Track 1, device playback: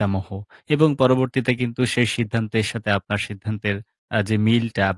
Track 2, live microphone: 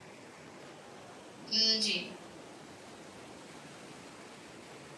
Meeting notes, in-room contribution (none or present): present